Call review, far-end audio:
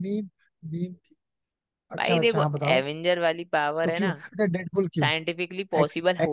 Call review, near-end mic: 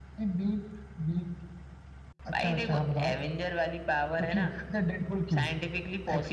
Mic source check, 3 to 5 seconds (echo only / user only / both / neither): echo only